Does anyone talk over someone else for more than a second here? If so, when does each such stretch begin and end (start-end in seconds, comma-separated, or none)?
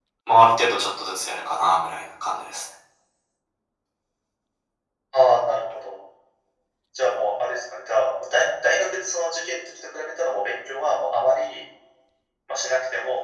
none